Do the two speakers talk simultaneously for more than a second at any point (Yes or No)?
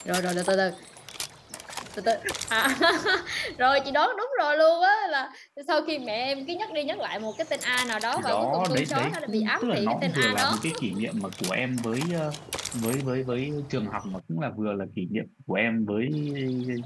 Yes